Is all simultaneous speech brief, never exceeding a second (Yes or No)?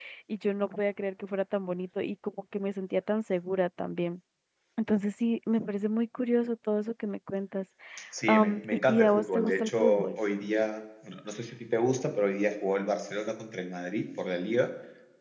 No